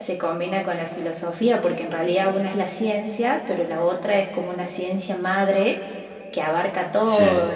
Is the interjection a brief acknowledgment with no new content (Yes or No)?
Yes